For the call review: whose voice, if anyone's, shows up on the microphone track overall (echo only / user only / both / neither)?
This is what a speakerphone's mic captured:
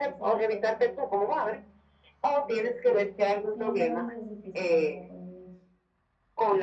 both